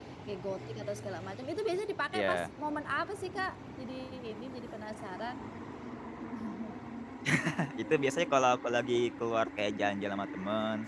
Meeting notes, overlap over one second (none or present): none